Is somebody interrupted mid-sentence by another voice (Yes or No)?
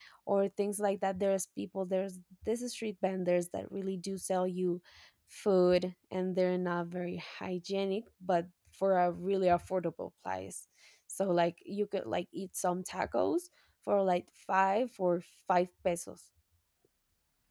No